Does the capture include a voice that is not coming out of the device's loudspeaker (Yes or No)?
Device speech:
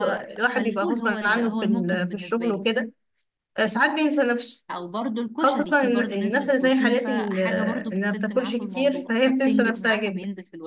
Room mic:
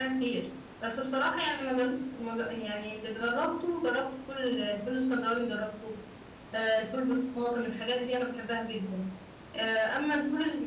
Yes